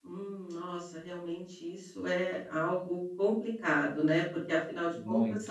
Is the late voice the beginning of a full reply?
No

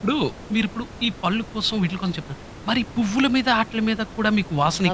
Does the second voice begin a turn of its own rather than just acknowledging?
Yes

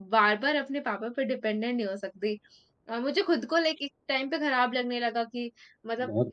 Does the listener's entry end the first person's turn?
No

